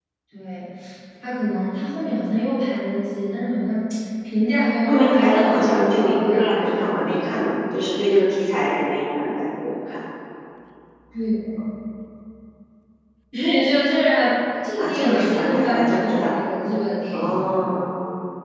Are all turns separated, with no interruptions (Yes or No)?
No